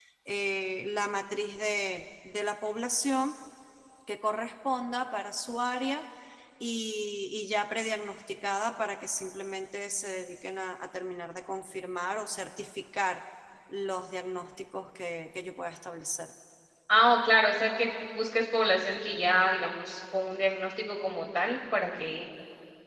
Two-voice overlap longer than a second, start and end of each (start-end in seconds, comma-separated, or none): none